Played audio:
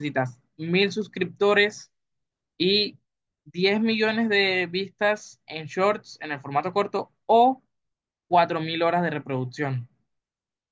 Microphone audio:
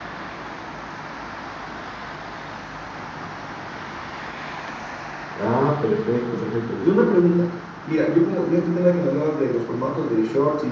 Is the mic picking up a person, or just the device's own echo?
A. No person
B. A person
B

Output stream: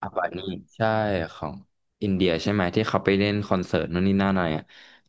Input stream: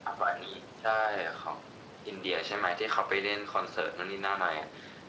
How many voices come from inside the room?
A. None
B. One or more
A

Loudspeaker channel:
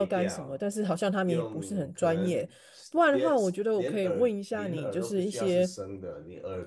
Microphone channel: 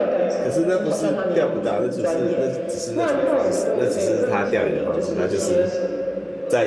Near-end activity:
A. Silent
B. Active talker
B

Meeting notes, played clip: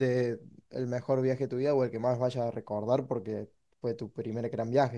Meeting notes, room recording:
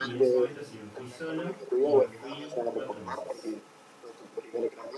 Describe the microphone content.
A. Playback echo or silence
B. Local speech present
B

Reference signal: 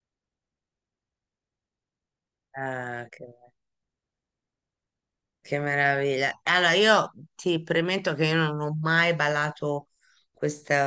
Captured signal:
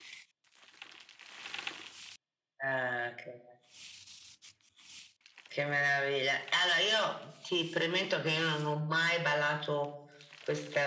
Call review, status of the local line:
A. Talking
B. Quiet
B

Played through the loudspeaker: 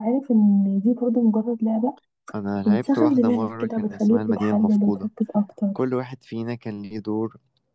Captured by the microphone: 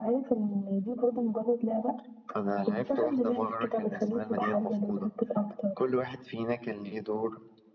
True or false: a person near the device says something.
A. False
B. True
A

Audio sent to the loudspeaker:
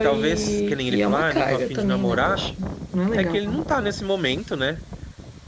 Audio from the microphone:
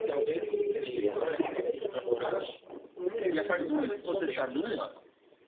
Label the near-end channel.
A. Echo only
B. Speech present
B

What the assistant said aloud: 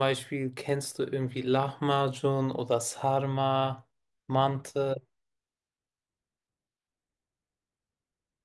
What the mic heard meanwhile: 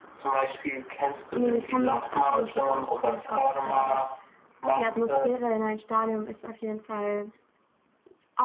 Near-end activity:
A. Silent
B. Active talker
B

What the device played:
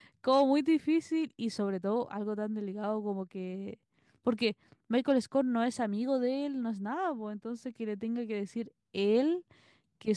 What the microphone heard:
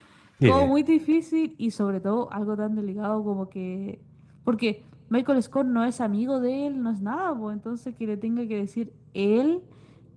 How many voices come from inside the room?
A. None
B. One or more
B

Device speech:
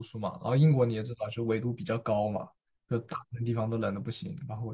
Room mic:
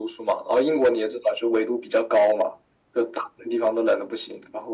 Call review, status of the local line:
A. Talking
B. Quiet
B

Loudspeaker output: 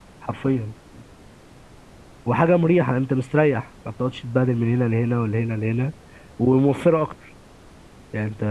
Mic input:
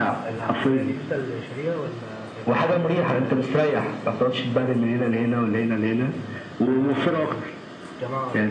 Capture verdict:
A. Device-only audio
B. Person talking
B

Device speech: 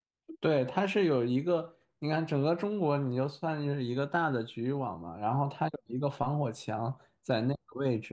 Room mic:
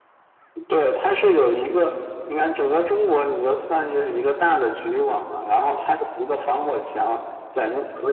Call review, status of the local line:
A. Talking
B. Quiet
B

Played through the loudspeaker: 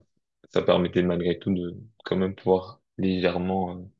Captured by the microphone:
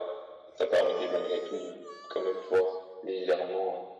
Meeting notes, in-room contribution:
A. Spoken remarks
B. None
B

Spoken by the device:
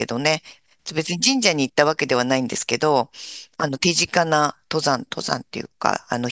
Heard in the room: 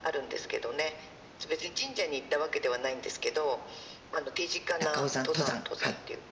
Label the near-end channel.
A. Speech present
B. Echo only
A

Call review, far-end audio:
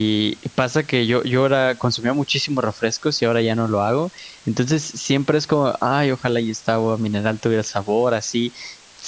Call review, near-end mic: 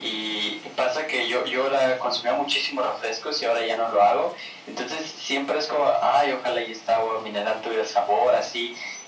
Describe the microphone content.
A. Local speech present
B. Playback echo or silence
B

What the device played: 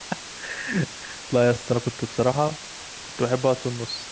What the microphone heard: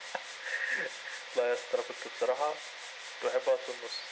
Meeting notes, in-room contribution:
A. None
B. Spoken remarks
A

